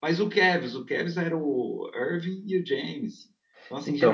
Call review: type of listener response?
taking over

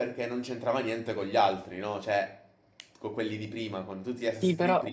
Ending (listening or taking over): taking over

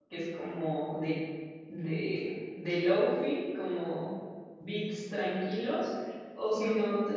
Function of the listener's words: listening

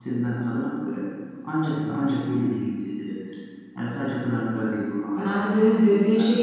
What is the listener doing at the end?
taking over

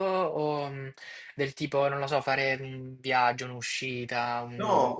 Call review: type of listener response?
taking over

